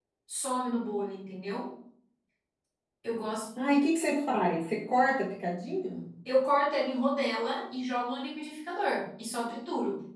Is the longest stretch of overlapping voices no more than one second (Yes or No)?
Yes